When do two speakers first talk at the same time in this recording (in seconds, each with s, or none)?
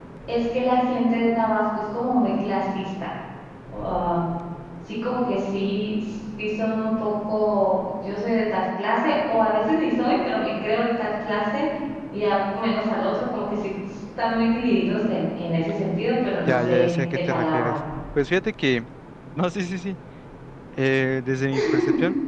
16.5 s